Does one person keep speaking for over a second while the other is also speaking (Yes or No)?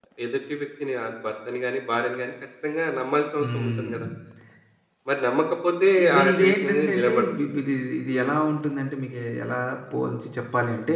Yes